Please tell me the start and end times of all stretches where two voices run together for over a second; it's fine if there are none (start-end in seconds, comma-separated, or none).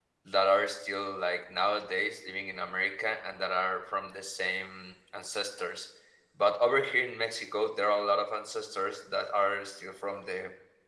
none